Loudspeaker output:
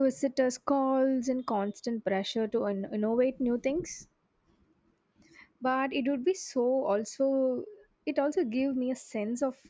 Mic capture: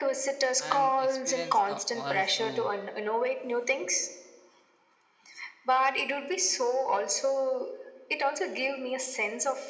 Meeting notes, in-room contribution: present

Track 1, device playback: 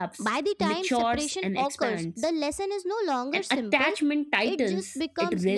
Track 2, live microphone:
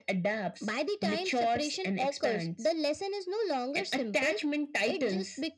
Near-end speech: none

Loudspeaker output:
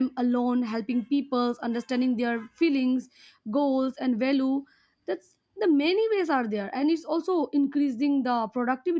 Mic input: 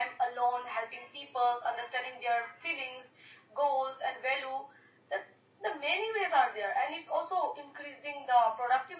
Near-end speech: none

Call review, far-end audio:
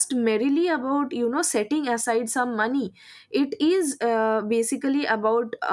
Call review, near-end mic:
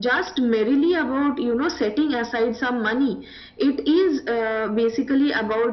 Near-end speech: none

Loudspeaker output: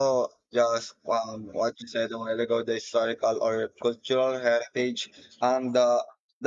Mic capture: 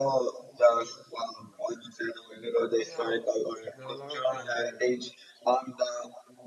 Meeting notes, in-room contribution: present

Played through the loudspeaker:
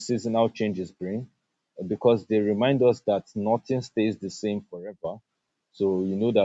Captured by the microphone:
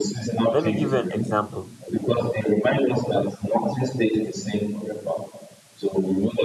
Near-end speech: present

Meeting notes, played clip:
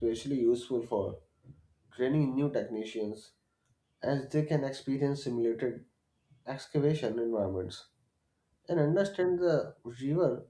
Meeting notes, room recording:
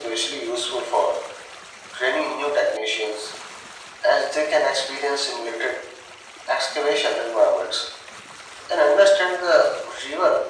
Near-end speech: none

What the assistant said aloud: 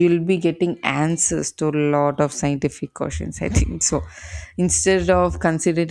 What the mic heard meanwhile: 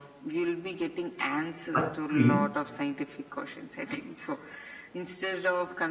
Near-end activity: present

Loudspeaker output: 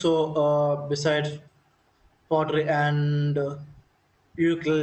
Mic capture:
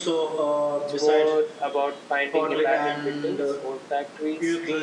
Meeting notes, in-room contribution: present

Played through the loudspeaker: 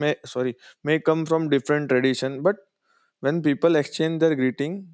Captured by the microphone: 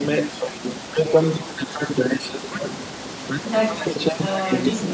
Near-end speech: present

